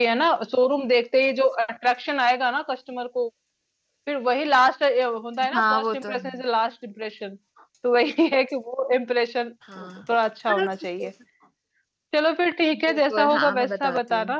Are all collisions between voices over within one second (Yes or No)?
No